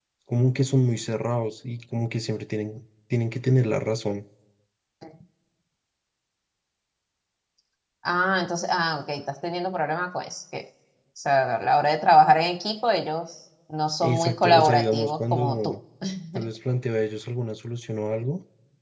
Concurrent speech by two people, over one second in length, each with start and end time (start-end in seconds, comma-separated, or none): 14.0-15.8